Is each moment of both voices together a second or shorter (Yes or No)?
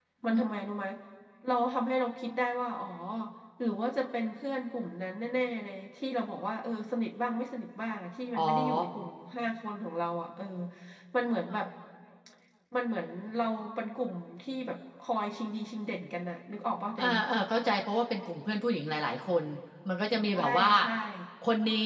Yes